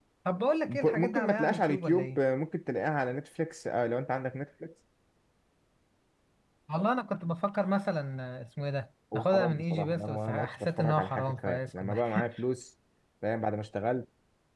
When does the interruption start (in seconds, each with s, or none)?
0.7 s